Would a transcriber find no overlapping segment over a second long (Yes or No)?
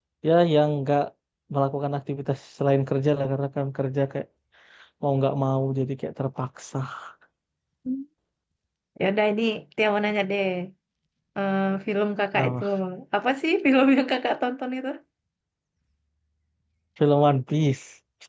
Yes